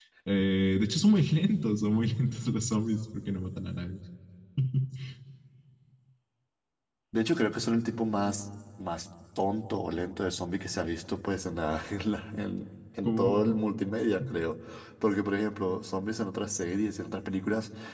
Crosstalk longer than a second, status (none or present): none